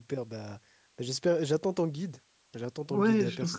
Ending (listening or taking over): taking over